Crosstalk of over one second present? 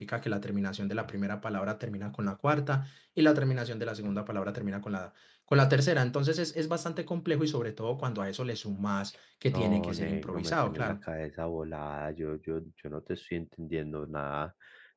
Yes, from 9.5 s

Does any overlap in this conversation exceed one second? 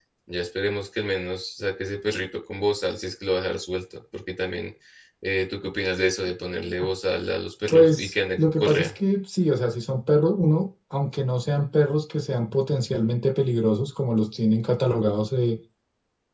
Yes, from 7.7 s

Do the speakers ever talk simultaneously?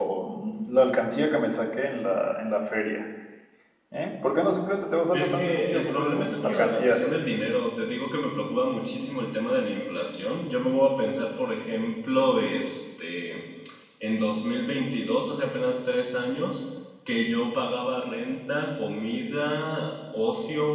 Yes, from 5.1 s

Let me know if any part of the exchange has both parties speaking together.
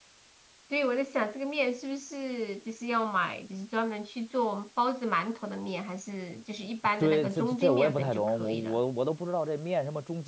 Yes, from 7.0 s

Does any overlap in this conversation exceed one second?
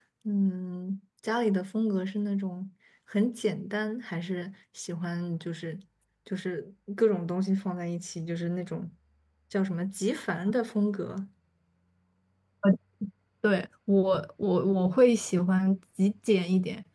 No

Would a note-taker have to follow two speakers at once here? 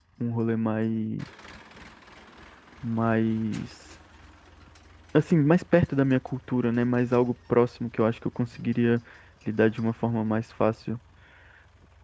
No

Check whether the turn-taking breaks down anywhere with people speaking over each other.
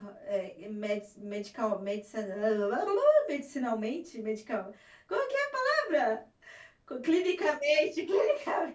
No

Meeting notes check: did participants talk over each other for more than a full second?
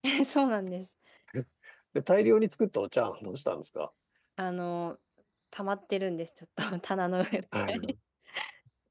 No

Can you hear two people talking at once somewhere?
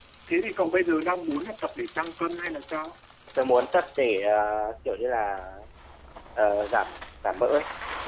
No

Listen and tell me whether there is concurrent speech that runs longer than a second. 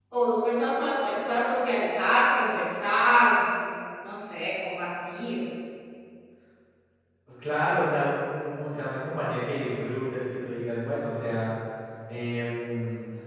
No

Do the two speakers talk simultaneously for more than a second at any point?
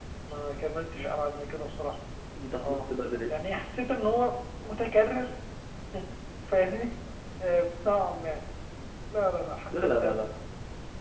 No

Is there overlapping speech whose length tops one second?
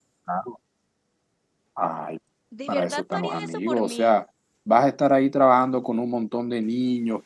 Yes, from 2.7 s

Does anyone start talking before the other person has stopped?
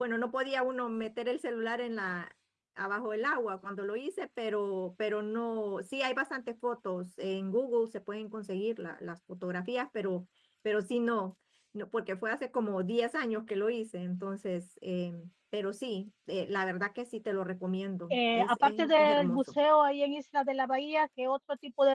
Yes, from 18.1 s

